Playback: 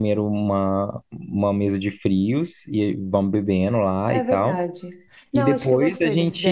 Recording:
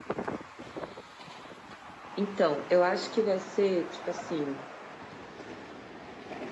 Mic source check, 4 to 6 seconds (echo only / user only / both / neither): user only